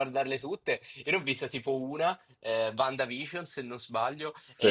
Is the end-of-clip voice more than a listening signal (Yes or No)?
No